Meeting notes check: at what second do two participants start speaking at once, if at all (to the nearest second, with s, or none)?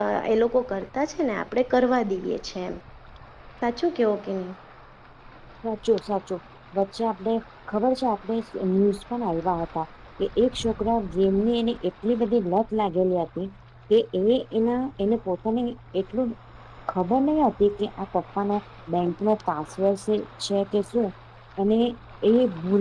none